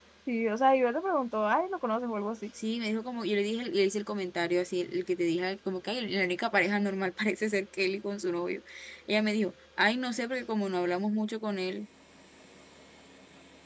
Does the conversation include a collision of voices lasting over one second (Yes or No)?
No